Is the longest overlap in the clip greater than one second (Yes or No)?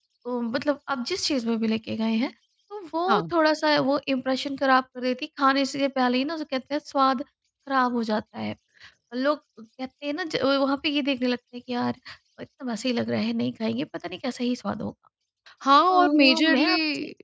Yes